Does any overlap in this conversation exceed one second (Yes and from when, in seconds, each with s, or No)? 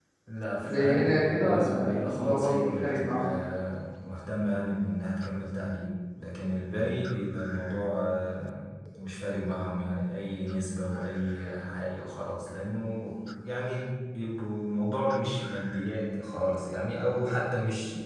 Yes, from 0.5 s